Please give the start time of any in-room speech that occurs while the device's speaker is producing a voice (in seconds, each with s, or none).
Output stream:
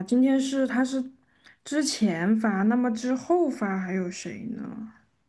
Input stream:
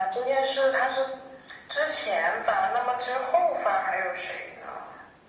none